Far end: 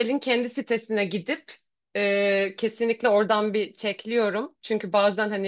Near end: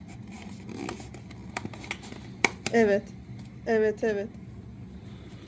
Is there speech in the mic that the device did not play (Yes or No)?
Yes